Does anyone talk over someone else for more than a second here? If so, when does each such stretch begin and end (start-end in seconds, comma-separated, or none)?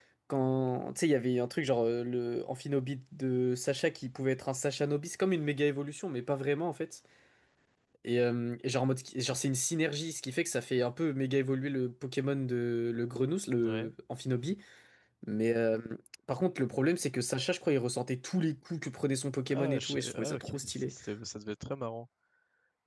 19.5-20.9